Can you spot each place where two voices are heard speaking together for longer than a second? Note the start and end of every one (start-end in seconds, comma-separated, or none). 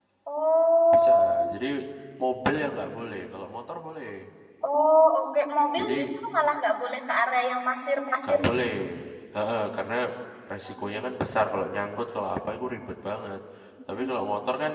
none